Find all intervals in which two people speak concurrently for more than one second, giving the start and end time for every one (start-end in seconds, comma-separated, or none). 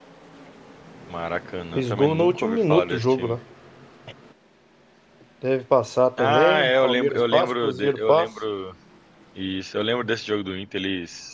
1.7-3.3, 6.2-8.3